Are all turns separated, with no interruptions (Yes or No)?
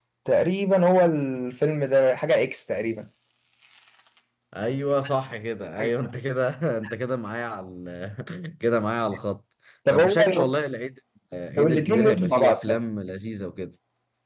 No